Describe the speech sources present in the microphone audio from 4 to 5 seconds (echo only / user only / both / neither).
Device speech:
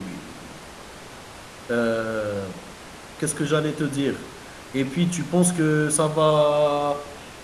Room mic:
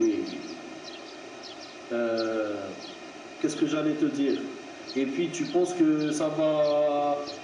echo only